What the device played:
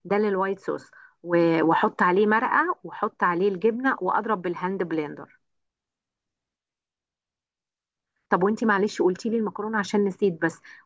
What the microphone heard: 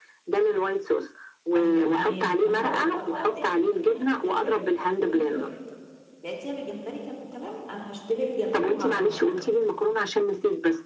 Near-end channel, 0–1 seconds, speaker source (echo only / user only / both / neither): echo only